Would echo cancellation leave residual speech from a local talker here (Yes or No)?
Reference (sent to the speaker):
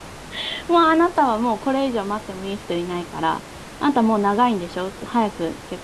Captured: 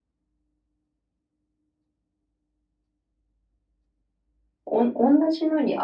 Yes